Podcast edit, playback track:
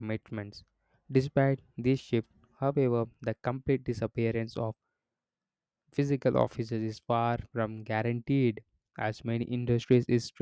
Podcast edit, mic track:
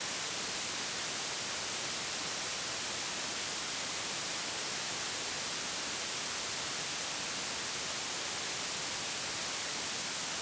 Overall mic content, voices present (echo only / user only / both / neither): neither